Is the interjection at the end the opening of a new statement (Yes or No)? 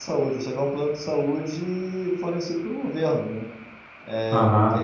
Yes